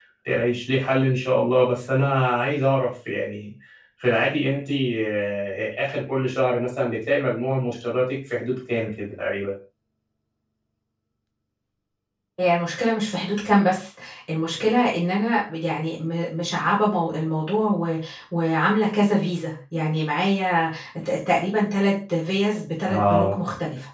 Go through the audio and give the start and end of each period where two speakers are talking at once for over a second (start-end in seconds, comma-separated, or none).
none